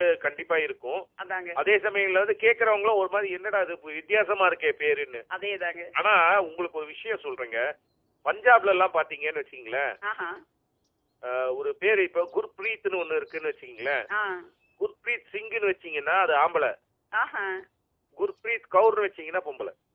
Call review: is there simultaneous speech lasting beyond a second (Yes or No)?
No